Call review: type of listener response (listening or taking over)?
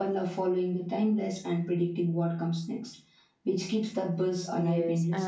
taking over